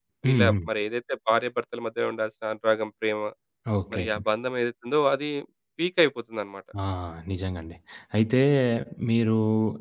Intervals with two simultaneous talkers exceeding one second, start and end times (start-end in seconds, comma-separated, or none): none